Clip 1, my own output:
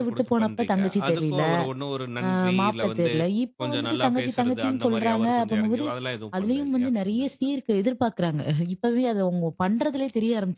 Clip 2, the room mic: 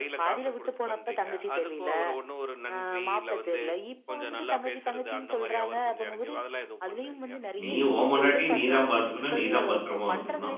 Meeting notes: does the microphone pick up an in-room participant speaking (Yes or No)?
Yes